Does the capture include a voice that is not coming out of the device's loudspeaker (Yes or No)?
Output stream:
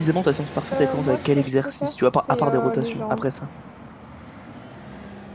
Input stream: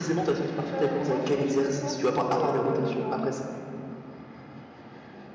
No